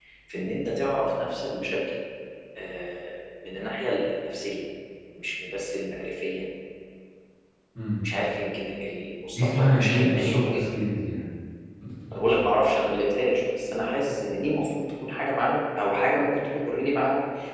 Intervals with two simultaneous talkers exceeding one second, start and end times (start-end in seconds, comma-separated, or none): 9.3-10.6